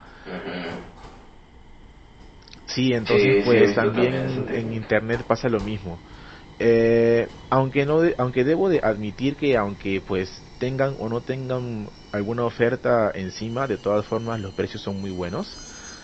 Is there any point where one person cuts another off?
Yes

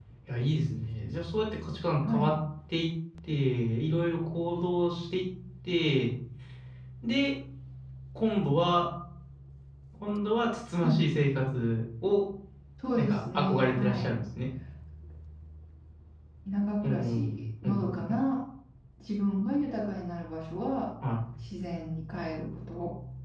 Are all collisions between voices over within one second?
No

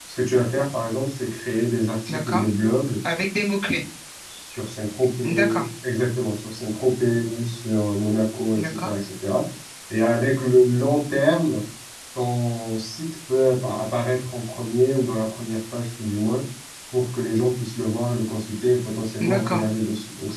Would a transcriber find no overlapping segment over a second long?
Yes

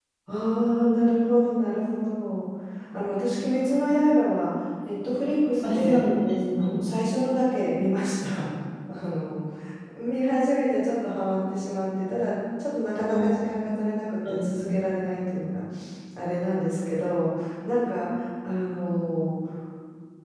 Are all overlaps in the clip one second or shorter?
Yes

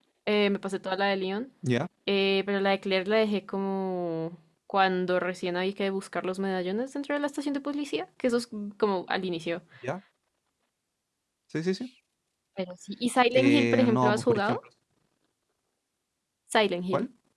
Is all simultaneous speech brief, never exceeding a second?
No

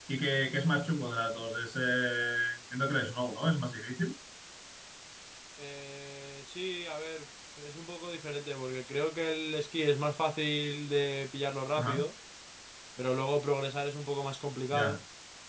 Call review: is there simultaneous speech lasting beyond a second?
No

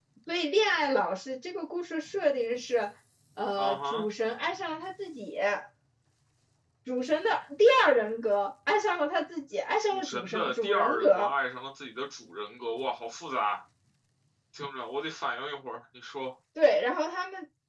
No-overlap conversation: No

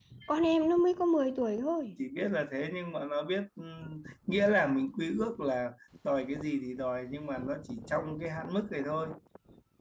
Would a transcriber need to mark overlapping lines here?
No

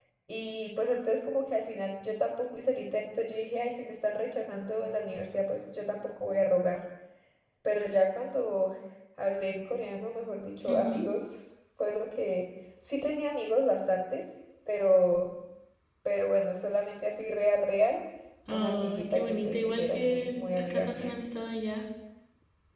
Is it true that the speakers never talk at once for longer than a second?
No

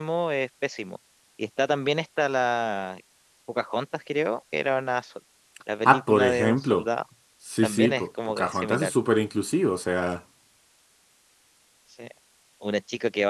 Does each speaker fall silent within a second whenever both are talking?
No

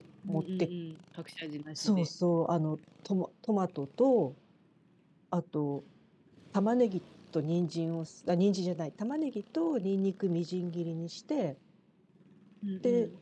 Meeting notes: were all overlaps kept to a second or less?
Yes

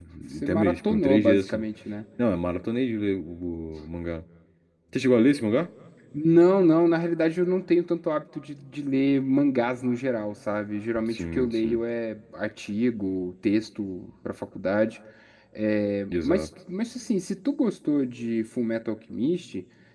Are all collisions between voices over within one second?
No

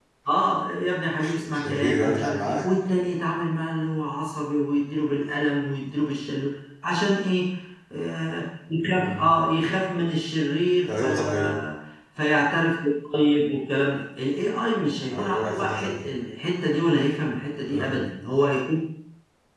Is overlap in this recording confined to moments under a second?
No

